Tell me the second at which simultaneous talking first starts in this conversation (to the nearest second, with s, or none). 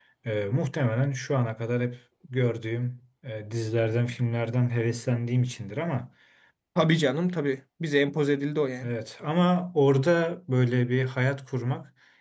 none